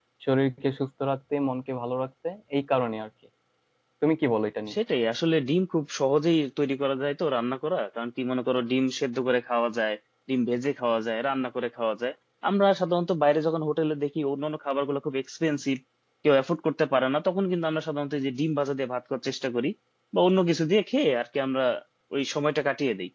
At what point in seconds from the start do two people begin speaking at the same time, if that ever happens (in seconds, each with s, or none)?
none